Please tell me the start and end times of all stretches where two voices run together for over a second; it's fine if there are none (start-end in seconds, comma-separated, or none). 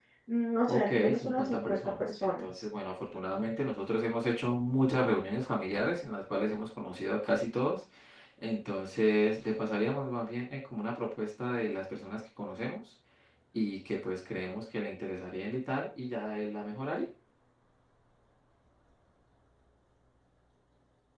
0.7-2.6